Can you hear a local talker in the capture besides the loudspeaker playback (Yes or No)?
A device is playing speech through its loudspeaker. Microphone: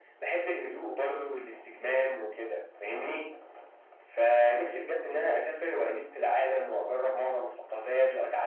No